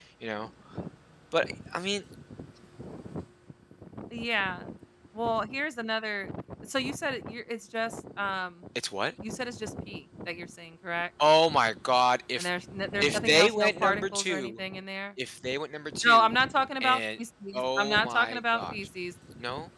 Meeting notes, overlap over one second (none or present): present